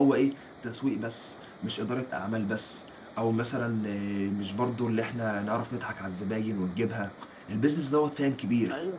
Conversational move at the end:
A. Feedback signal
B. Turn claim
A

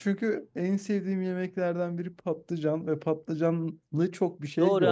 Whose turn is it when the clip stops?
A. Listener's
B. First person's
A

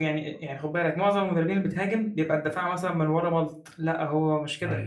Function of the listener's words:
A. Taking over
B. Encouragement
B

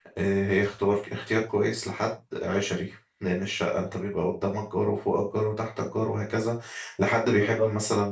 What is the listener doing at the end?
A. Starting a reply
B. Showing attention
B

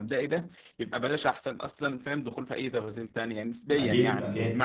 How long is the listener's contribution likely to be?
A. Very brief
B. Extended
A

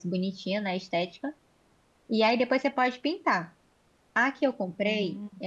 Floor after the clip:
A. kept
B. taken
A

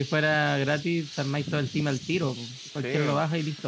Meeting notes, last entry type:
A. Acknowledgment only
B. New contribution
B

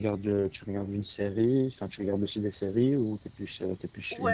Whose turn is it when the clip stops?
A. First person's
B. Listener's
B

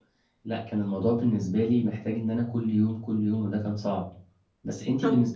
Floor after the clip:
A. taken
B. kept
A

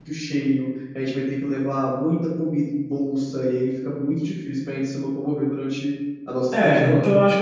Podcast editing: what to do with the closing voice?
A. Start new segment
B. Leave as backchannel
A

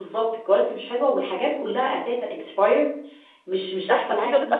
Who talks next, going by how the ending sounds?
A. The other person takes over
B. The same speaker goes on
A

